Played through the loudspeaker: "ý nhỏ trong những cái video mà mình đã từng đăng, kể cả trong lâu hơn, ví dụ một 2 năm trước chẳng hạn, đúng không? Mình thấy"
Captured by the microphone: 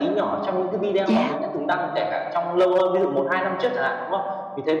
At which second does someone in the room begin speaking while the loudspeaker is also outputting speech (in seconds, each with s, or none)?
1.1 s